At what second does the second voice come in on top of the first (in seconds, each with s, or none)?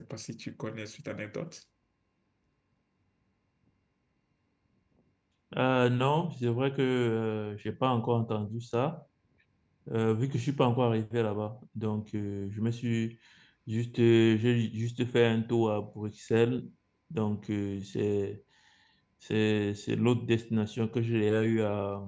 none